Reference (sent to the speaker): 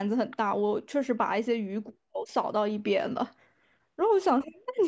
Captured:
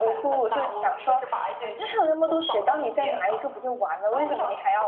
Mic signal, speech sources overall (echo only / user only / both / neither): both